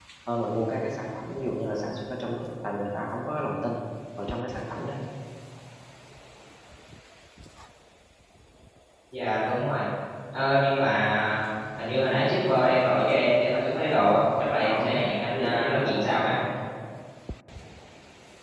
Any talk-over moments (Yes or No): Yes